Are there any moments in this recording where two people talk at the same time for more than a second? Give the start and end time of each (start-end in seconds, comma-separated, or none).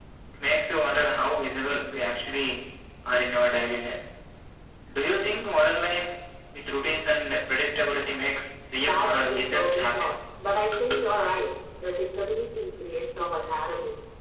8.8-10.1